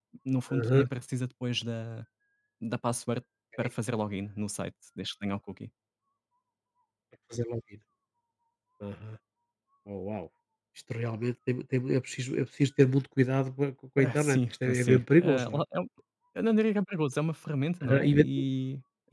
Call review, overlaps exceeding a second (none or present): present